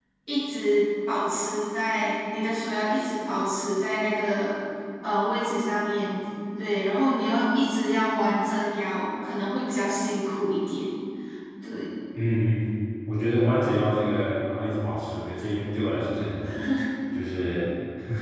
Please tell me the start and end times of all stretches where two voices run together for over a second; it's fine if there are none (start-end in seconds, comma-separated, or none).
none